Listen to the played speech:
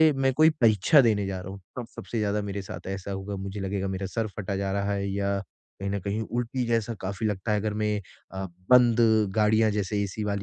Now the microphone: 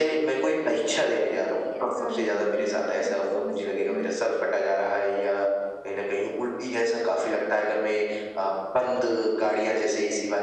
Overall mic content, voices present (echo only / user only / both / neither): both